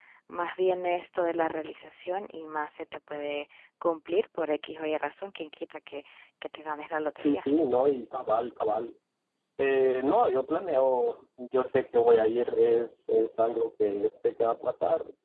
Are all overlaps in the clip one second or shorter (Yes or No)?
Yes